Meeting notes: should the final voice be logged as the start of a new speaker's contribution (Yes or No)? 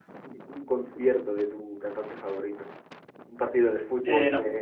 No